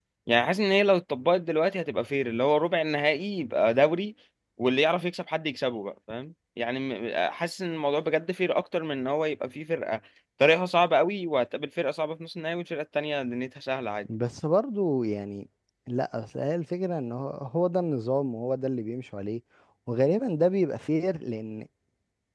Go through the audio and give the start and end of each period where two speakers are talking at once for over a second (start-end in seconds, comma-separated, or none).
none